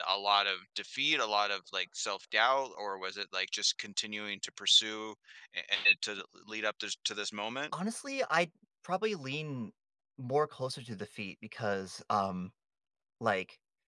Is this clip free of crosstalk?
Yes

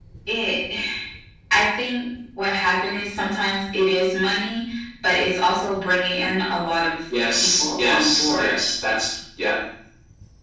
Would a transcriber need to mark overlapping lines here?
Yes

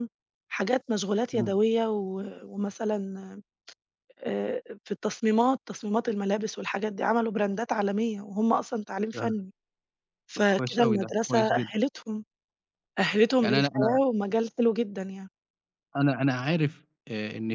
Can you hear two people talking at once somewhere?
Yes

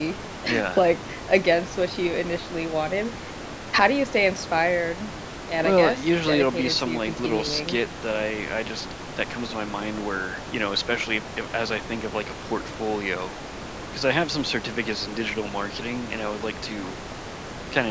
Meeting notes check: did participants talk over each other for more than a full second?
Yes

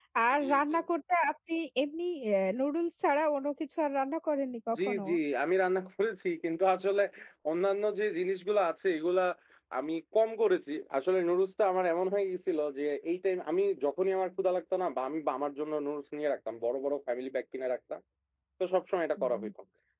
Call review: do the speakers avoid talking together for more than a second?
Yes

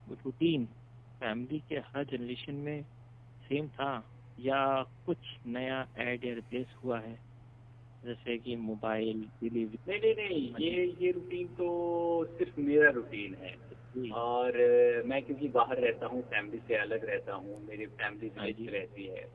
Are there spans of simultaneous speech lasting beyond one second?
No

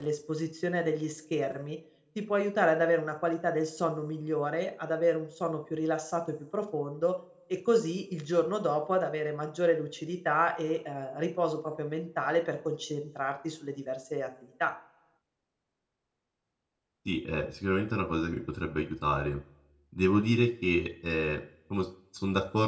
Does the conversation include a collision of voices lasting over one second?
No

